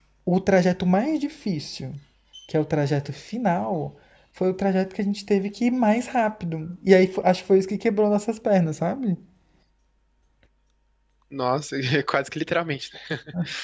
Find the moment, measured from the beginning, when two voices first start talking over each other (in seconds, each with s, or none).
none